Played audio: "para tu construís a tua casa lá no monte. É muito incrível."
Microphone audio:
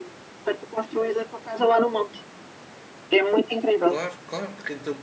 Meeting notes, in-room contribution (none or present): present